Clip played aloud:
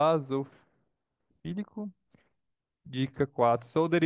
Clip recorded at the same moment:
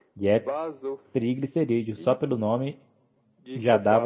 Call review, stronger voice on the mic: user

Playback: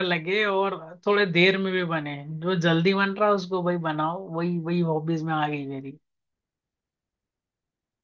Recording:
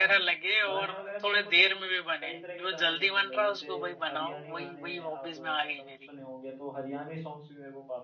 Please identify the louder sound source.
echo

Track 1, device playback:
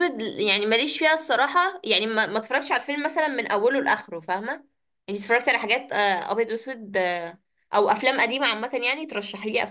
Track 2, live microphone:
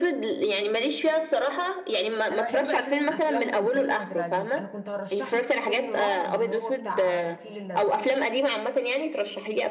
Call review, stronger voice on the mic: echo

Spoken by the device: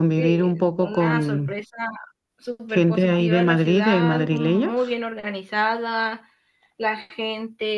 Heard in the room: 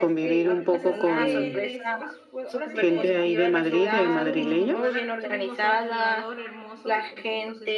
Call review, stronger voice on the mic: echo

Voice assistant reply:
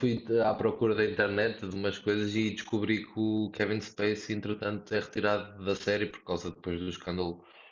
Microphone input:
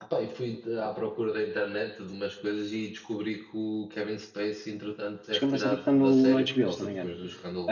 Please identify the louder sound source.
user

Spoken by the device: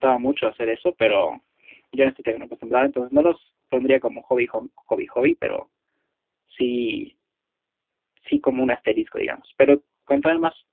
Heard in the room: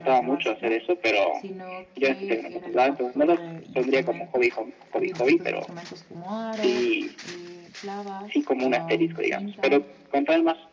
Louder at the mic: echo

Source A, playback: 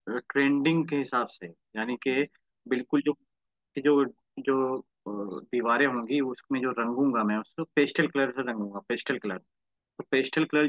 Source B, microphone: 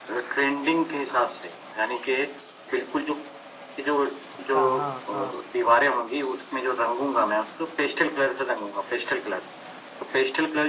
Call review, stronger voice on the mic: echo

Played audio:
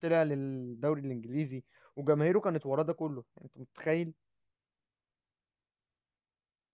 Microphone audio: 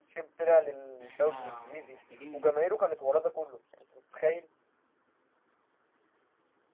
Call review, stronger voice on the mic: echo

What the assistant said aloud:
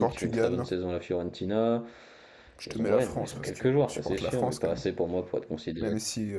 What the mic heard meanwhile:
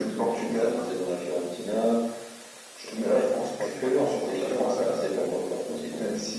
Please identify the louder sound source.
echo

